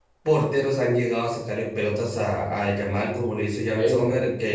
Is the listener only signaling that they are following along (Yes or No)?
Yes